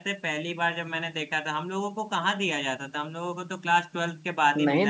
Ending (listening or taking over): taking over